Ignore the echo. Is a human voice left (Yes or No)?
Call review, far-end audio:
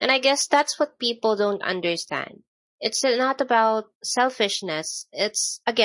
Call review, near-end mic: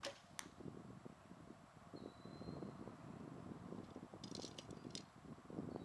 No